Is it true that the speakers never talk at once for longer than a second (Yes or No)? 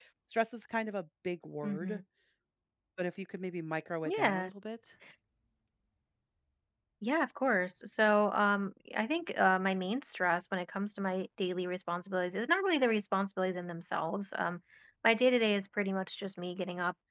Yes